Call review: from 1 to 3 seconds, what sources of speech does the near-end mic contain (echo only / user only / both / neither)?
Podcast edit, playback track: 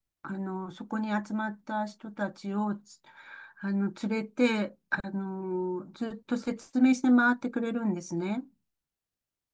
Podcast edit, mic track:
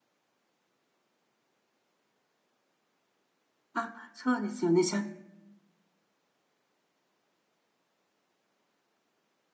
neither